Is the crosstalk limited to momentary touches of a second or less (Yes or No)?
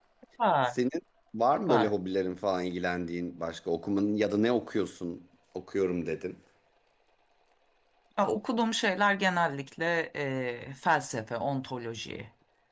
Yes